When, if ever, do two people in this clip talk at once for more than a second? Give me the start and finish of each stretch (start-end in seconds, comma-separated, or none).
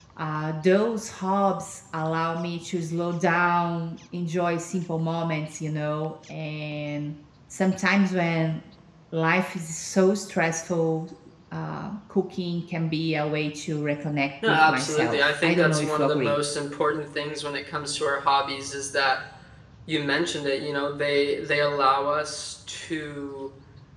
14.5-16.4